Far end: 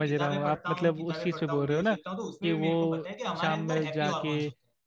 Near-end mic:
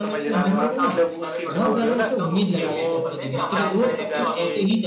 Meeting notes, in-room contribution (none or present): present